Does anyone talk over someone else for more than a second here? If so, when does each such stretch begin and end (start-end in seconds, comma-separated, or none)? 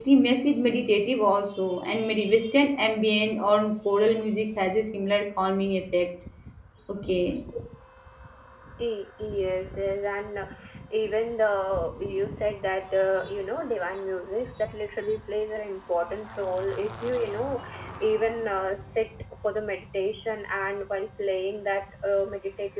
none